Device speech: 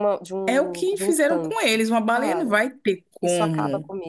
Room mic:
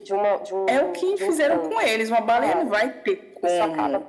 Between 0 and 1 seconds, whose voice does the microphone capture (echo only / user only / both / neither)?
echo only